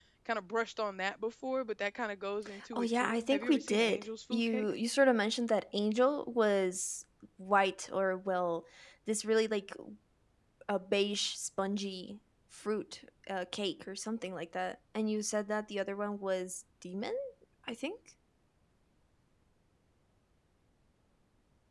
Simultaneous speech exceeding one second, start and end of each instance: 2.7-4.7

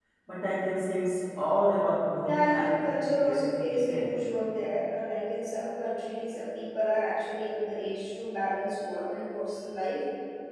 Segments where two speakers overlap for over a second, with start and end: 2.2-4.1

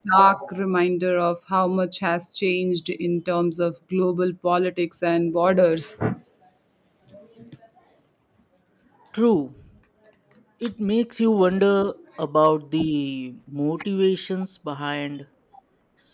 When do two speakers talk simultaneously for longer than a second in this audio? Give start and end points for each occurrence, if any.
none

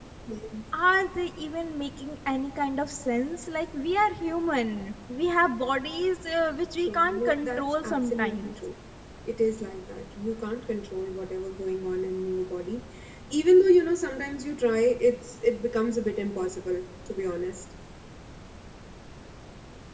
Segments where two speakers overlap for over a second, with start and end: 6.9-8.5

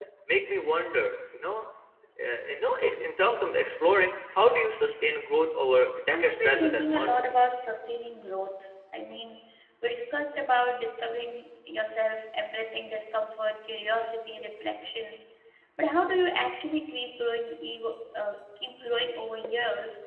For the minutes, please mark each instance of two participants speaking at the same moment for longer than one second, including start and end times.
6.1-7.3

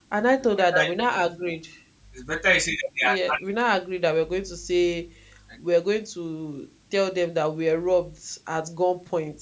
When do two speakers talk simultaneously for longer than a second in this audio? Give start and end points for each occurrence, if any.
none

